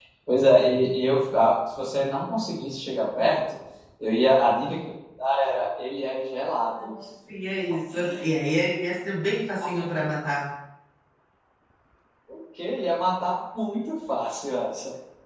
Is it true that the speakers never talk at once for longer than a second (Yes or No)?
Yes